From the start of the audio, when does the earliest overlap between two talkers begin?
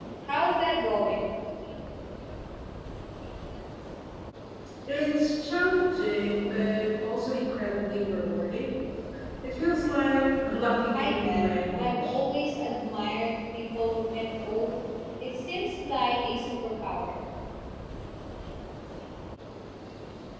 10.9 s

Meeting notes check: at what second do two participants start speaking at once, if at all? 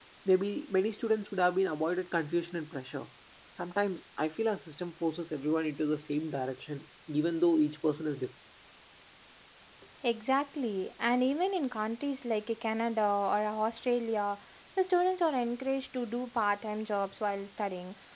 none

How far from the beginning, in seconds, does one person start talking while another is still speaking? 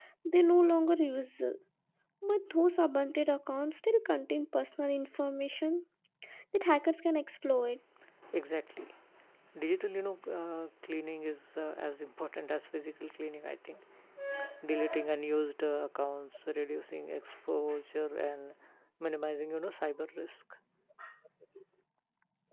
none

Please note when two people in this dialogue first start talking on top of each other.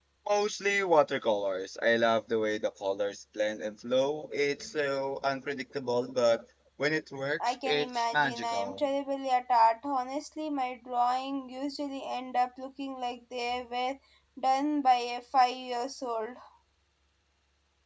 7.4 s

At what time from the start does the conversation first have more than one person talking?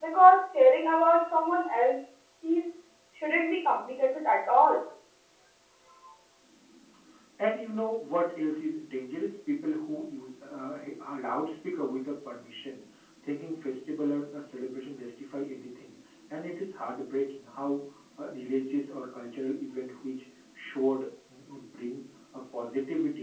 none

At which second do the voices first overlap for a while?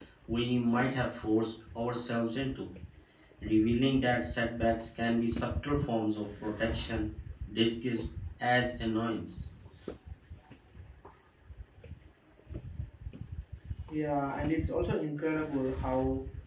none

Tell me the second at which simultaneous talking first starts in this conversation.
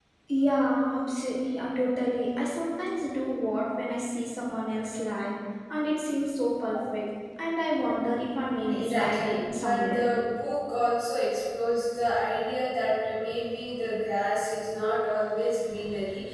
8.7 s

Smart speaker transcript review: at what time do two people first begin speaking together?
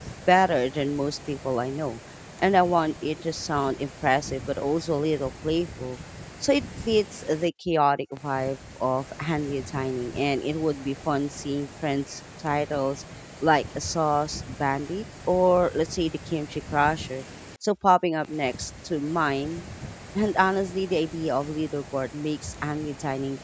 none

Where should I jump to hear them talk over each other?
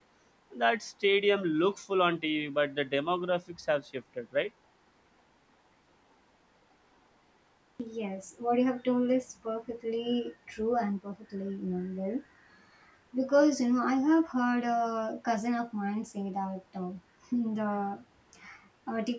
none

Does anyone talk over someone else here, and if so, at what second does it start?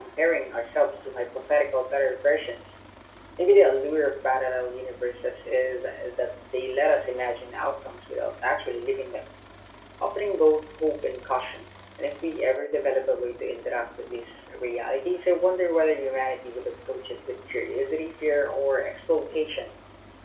none

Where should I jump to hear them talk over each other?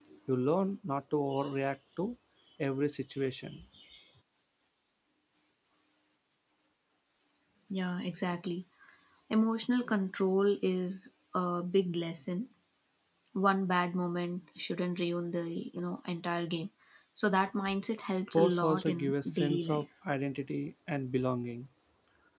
18.1 s

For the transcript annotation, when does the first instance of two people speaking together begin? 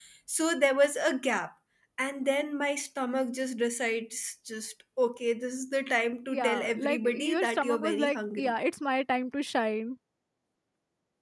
6.3 s

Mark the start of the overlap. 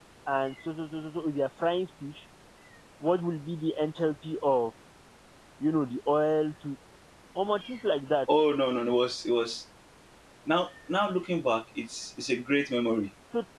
none

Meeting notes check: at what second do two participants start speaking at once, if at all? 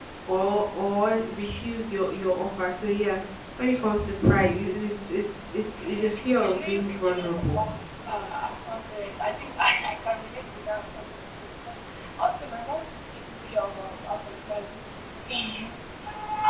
5.8 s

